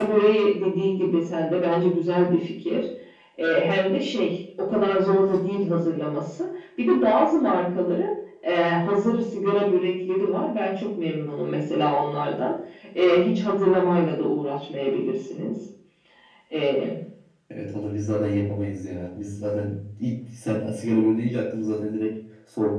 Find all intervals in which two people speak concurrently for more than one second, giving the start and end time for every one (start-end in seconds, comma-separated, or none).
none